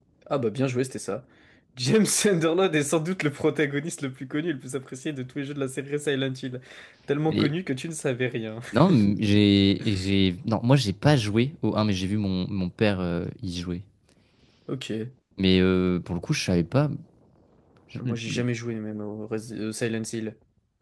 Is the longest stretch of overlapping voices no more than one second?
Yes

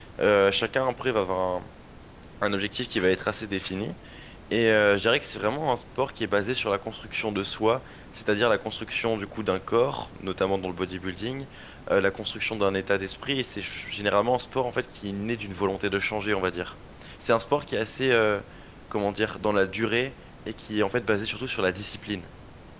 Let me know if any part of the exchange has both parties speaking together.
No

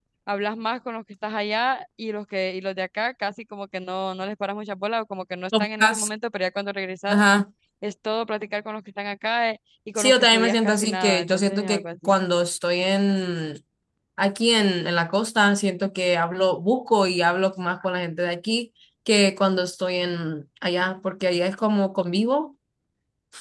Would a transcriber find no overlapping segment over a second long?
No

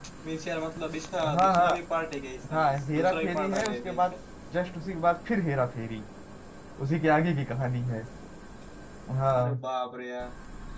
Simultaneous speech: Yes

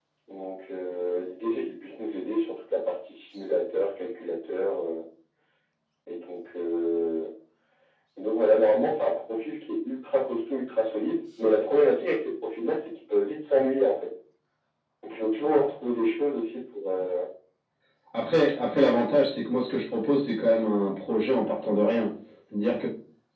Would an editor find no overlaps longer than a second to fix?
Yes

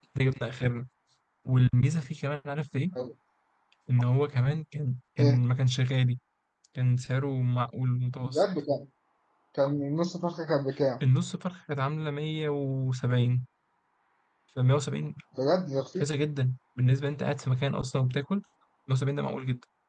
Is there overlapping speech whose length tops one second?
No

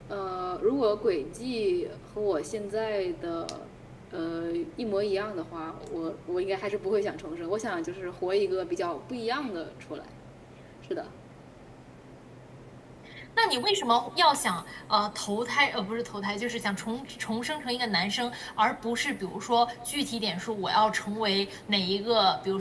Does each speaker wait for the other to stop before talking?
Yes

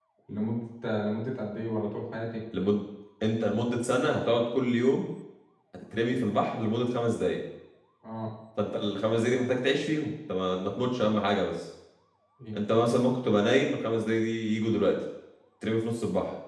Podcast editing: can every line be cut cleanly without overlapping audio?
Yes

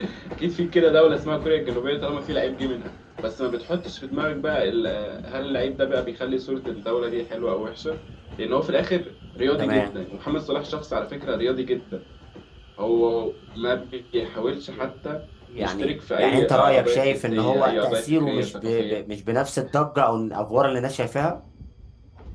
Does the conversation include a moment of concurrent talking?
Yes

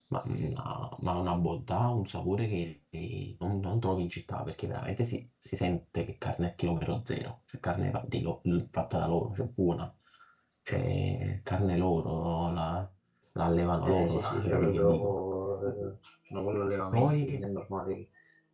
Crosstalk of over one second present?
Yes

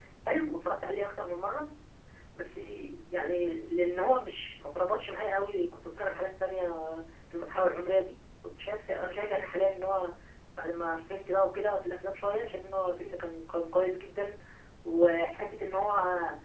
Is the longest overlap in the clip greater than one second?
No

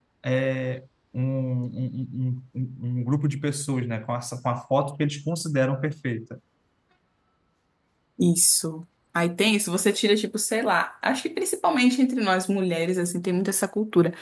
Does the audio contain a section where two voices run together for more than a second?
No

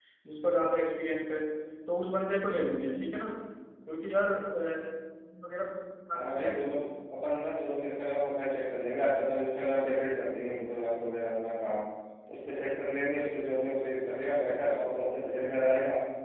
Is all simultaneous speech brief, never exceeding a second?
Yes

